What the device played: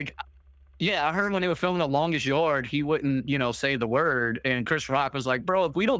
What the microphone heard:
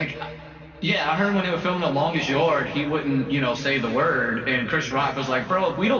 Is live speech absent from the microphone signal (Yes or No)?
Yes